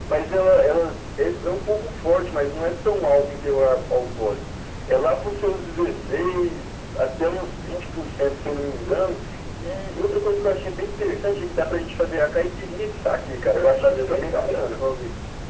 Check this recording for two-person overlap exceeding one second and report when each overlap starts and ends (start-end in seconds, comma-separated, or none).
13.5-14.8